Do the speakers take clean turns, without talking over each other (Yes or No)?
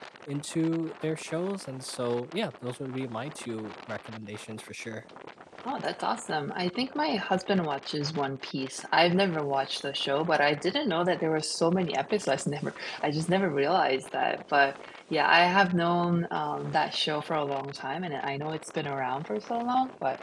Yes